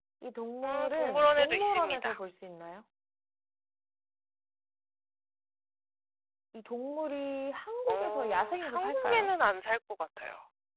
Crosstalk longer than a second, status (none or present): present